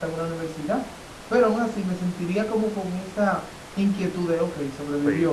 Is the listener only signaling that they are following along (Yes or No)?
No